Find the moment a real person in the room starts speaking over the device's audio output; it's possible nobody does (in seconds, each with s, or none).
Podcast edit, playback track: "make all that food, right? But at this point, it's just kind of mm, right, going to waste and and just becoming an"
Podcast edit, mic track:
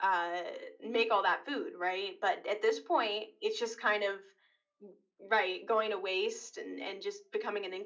none